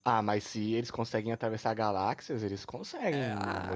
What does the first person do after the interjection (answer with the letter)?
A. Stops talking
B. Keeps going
A